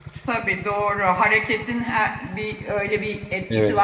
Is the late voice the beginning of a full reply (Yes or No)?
Yes